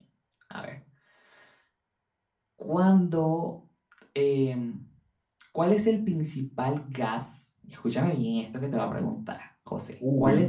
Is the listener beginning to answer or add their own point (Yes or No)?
No